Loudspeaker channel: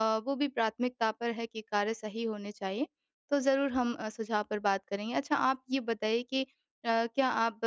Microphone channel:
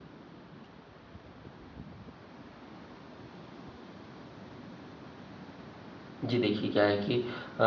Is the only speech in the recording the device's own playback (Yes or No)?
No